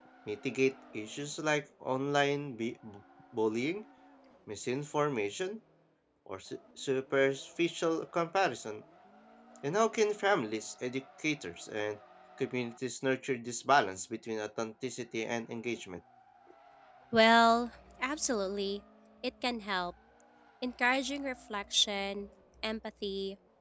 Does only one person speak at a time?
Yes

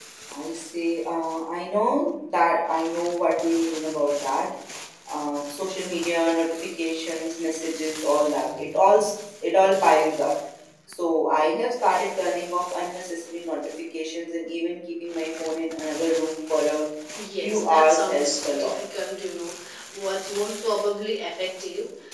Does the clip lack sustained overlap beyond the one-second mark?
No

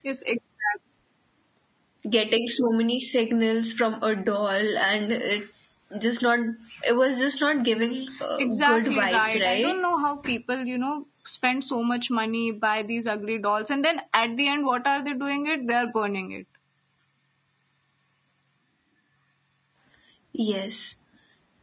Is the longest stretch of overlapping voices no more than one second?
No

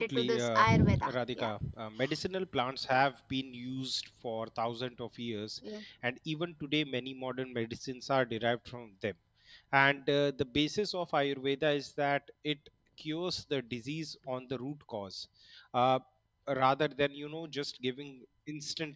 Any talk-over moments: Yes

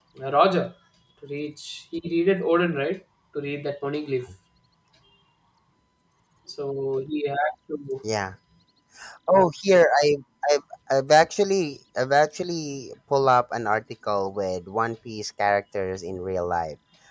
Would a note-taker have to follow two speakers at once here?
No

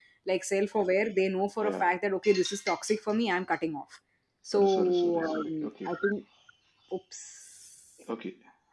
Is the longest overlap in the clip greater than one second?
Yes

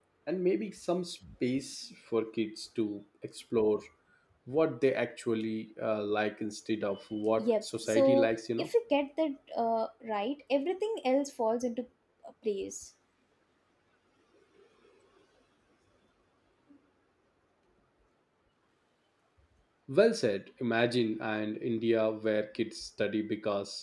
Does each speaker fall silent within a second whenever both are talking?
No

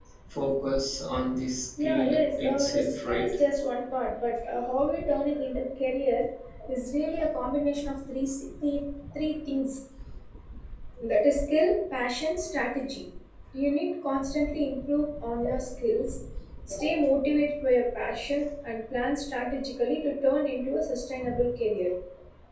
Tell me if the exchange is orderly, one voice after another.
No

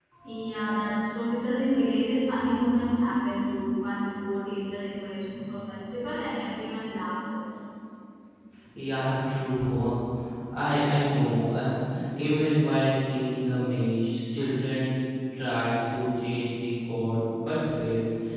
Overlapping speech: No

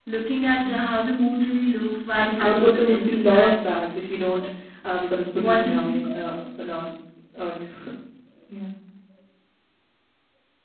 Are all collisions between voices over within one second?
No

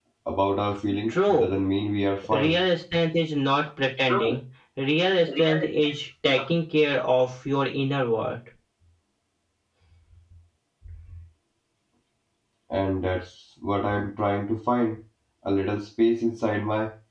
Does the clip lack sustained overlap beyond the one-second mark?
Yes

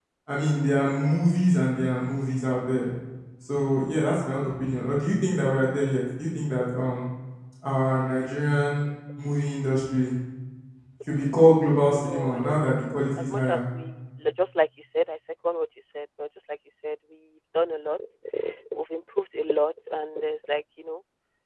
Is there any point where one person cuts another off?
Yes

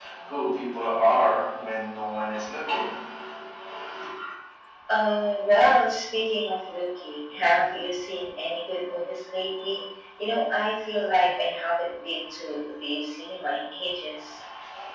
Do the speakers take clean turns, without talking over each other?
Yes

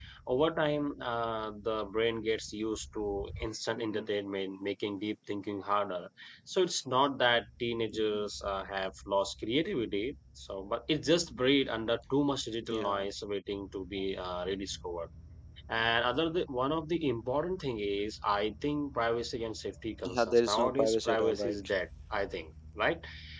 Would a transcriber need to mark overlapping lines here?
Yes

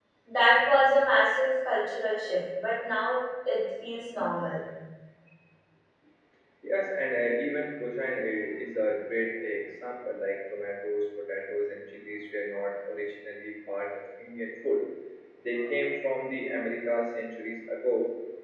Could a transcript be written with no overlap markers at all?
Yes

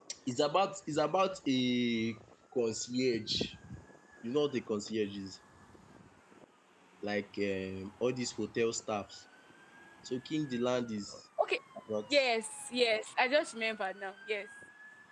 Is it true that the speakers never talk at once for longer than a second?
Yes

